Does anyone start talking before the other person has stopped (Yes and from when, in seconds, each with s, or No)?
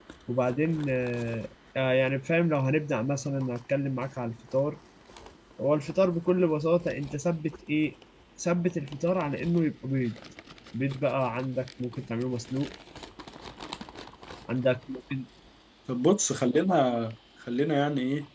No